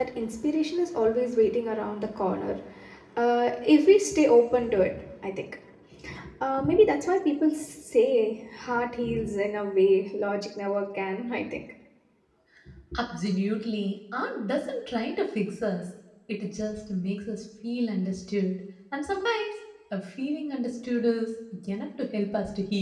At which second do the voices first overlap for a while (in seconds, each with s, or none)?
none